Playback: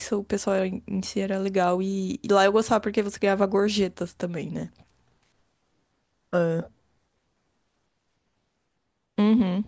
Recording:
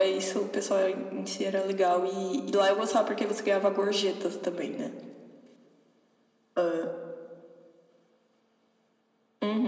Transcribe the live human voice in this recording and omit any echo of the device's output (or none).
none